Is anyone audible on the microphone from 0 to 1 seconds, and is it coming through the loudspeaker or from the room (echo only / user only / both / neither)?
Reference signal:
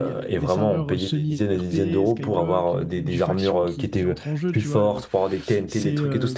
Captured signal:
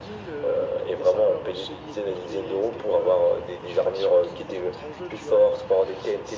echo only